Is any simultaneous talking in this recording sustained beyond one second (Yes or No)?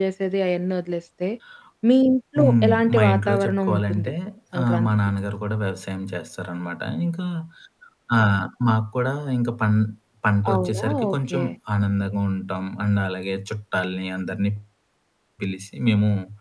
Yes